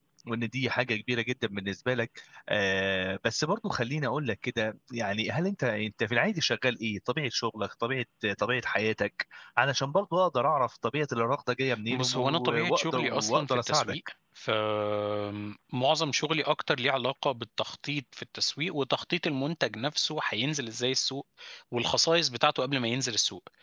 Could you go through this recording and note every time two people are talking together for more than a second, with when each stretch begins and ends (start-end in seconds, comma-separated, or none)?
11.9-13.9